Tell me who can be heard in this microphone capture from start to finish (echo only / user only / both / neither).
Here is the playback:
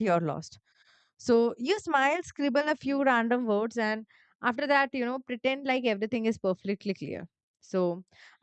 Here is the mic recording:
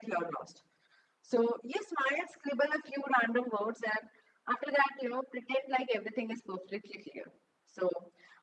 echo only